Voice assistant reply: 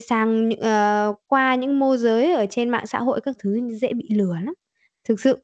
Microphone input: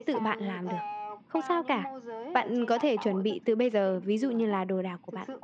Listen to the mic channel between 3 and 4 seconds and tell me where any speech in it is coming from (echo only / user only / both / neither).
both